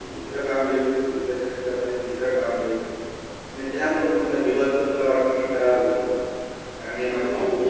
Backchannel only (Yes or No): Yes